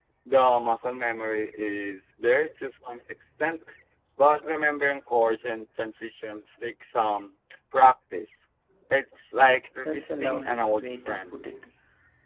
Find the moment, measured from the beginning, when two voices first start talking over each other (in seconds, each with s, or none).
9.8 s